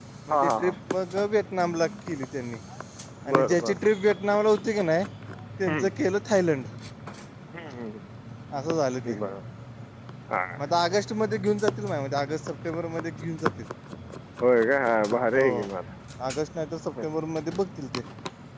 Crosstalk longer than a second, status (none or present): none